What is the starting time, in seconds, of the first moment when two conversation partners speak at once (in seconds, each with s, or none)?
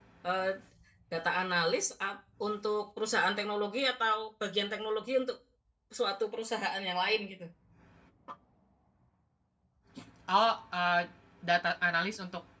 none